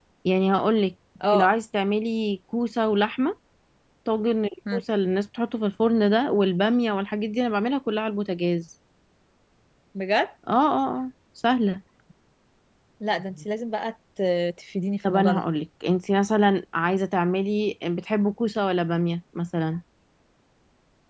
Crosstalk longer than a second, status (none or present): none